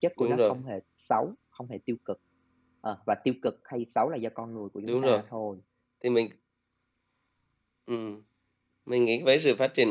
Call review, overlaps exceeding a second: none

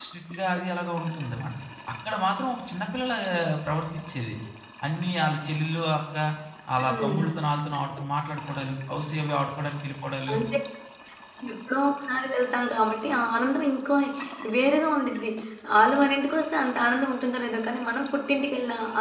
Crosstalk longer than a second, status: none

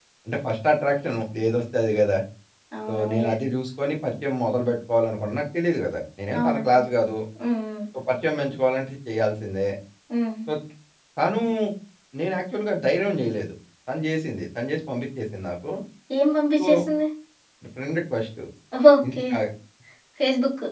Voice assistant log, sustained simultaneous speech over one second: none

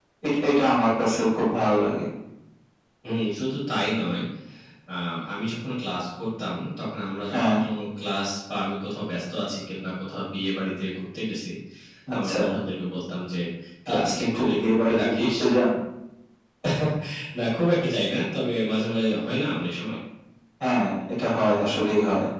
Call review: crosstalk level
present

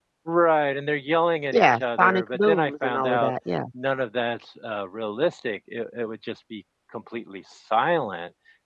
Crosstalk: present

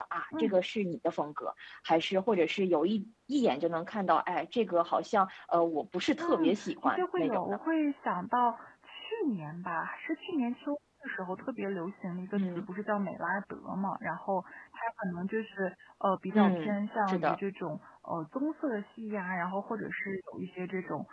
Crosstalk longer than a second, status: present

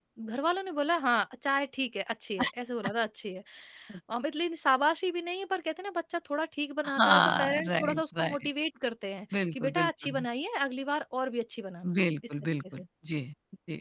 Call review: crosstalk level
present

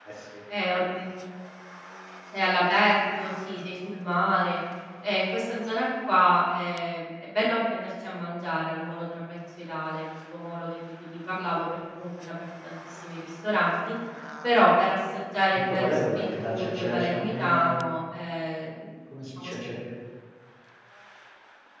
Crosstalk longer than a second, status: present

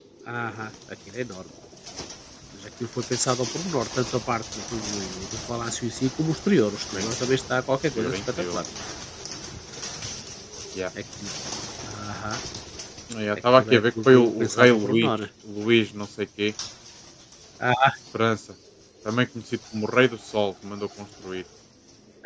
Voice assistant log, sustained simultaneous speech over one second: present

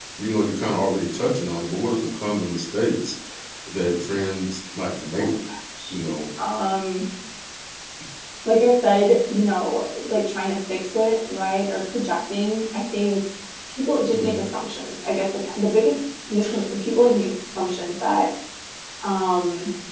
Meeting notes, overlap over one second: none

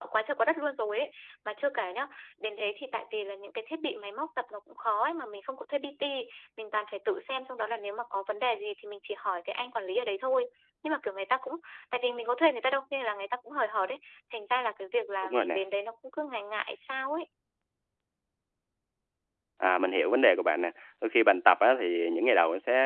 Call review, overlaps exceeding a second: none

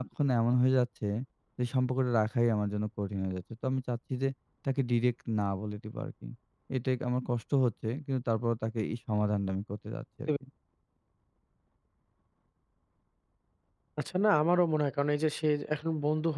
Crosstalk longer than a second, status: none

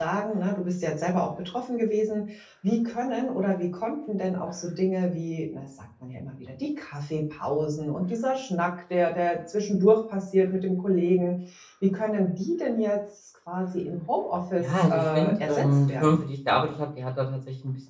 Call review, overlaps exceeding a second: present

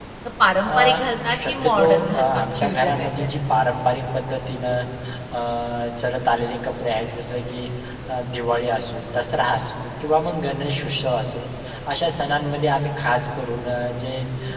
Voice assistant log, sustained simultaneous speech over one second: present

